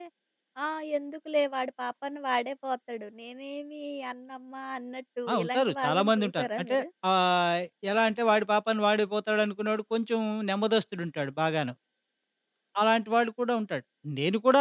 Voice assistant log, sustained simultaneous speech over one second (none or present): present